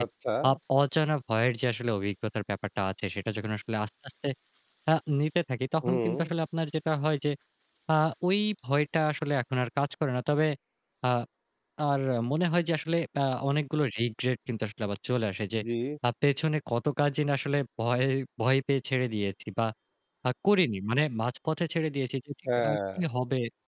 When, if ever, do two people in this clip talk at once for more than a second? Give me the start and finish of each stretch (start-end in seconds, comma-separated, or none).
none